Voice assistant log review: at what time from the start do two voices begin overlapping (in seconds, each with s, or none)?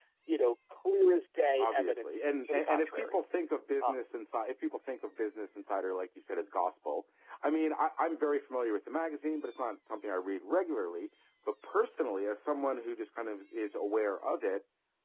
1.6 s